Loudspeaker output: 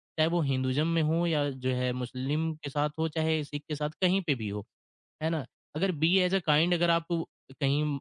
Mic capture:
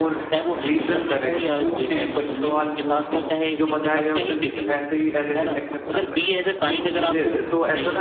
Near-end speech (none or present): present